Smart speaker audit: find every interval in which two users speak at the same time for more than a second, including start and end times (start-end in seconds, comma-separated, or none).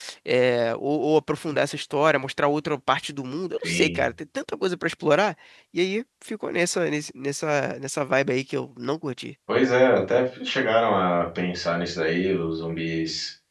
none